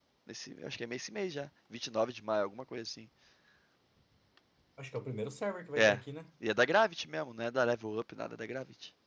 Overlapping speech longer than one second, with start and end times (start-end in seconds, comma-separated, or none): none